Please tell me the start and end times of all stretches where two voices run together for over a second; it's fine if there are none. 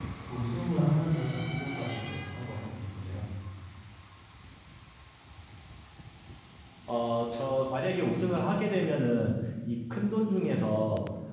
none

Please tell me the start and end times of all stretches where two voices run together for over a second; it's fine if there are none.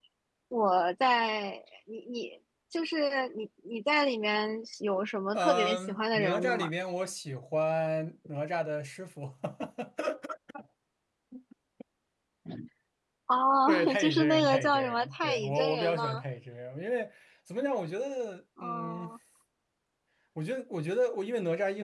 5.3-6.7, 13.7-16.2

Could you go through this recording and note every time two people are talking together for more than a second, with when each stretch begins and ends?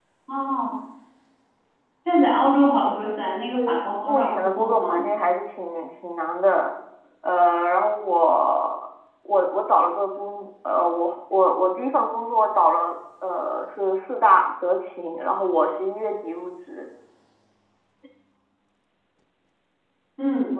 3.5-5.0

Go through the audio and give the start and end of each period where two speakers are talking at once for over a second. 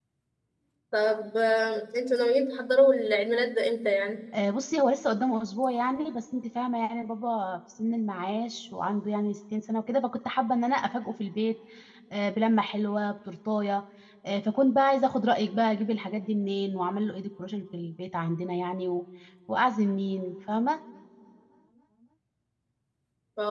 none

